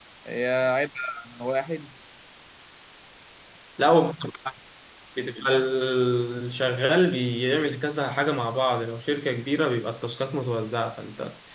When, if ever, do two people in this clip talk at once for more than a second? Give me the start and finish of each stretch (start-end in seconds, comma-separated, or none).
none